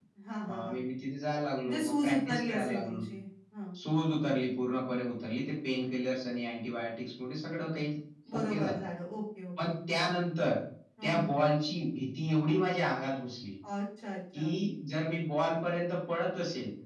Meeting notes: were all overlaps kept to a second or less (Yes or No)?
No